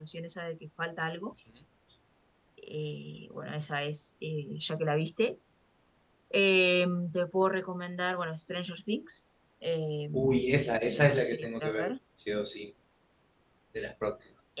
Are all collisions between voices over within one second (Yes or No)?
No